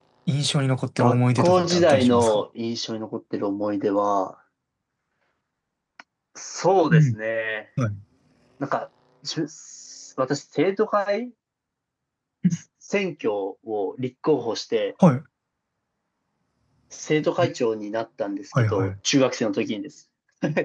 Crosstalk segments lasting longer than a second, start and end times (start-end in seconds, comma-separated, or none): 1.0-2.4